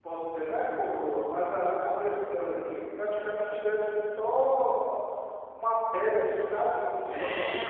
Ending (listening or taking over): taking over